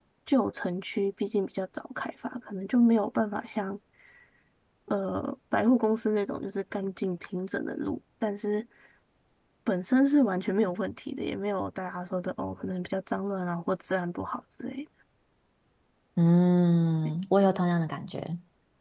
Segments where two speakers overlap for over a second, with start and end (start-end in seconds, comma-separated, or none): none